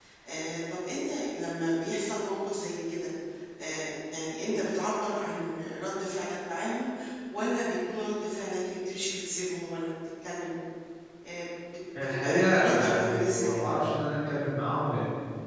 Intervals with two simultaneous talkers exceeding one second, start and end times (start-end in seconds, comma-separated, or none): 12.0-13.8